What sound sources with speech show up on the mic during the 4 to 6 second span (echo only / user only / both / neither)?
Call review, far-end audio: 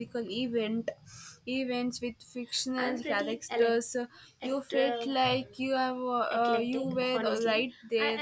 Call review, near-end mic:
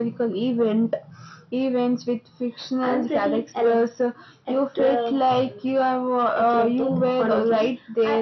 echo only